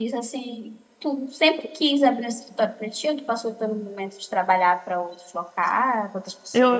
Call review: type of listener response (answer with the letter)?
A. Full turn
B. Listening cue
A